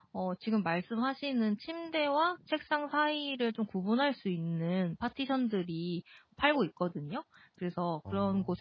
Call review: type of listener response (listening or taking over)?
listening